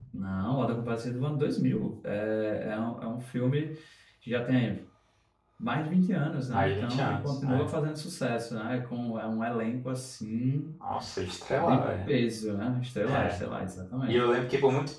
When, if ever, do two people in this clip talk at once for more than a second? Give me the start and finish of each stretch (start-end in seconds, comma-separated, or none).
6.5-7.7